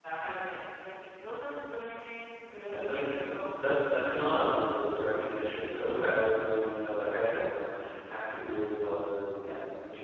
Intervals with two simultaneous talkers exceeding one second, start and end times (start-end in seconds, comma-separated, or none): 2.6-4.1